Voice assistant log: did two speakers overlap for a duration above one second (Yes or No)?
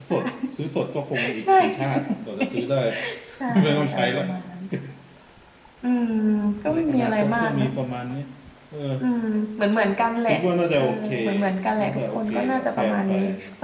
Yes